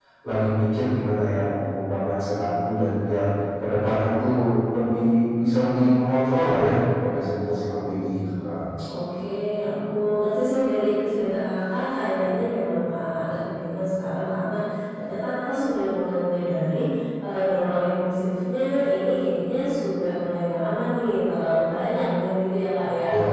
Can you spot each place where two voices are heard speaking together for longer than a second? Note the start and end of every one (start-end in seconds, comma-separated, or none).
none